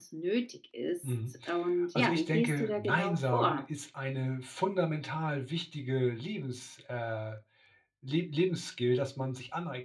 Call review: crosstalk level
present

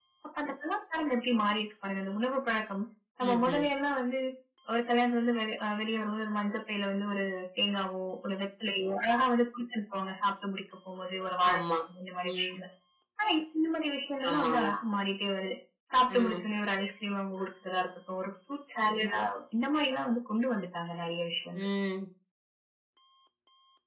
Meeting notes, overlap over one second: none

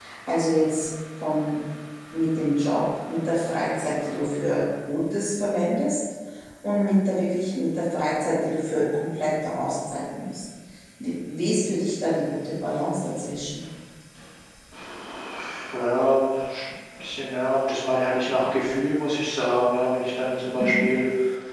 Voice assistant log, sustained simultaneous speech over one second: none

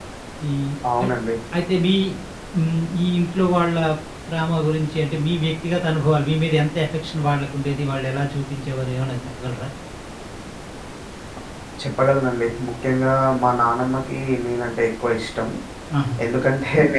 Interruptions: none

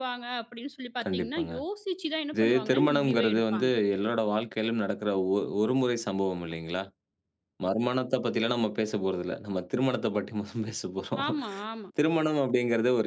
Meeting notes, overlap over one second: present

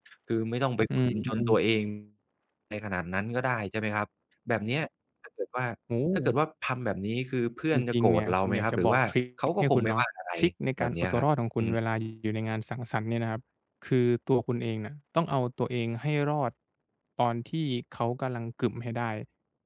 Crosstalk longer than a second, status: present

